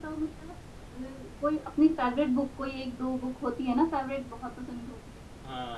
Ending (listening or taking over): taking over